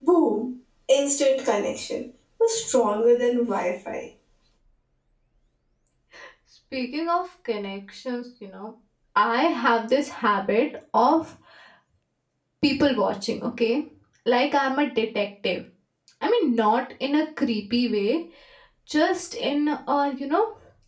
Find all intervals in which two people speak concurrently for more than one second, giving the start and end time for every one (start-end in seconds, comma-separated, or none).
none